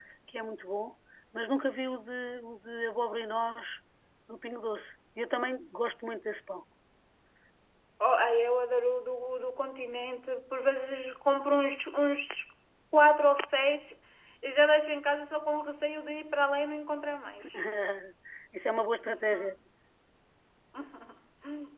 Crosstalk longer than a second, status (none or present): none